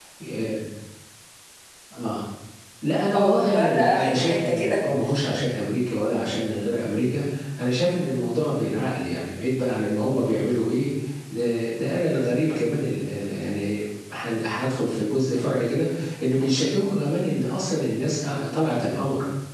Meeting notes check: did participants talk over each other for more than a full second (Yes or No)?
Yes